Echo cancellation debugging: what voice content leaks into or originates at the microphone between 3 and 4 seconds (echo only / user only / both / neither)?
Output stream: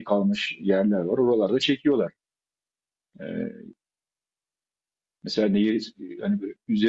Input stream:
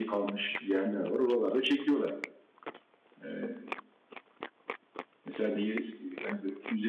echo only